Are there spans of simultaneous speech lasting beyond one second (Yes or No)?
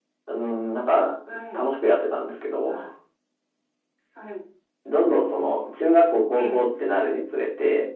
No